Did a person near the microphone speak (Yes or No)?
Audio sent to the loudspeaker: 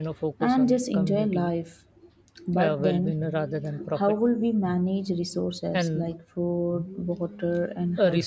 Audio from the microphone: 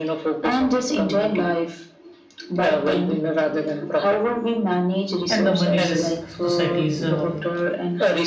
Yes